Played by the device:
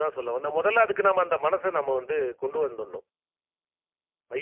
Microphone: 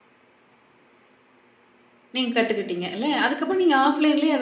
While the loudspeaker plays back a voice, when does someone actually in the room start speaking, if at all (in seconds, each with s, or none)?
2.2 s